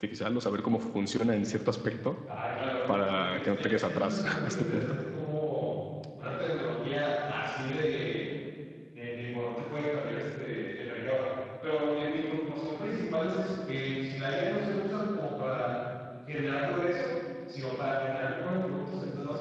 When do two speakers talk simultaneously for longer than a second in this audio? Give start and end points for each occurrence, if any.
2.9-5.0

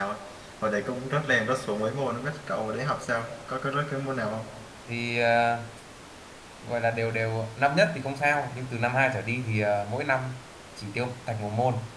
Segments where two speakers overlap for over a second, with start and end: none

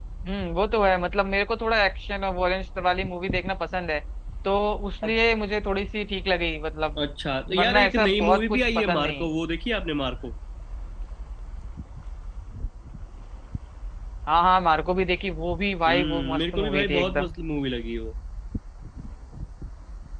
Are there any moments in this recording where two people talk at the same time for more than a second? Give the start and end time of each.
7.6-9.3, 15.9-17.3

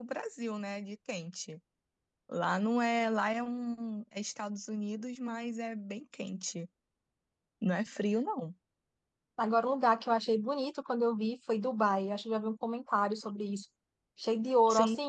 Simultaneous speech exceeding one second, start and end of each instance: none

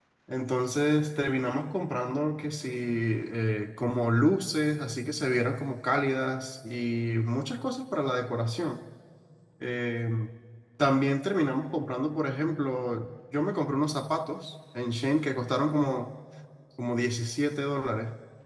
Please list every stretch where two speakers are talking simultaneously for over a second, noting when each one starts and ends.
none

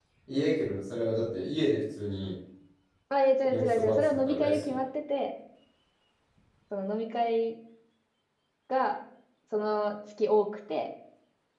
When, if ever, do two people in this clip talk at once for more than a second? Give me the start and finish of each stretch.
3.5-4.8

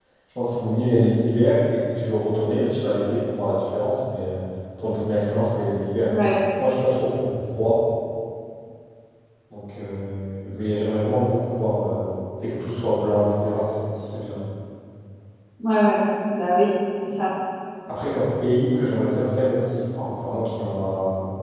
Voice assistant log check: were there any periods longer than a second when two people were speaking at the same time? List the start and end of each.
none

